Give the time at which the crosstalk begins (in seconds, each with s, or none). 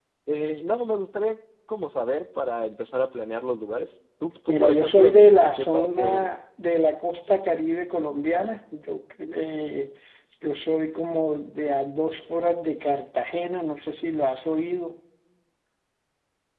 4.5 s